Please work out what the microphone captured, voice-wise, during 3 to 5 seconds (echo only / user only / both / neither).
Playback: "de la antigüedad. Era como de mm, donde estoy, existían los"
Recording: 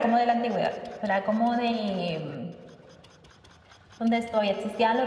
echo only